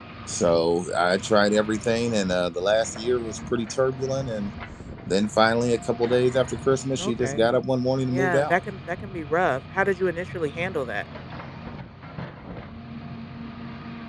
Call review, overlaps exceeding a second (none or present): none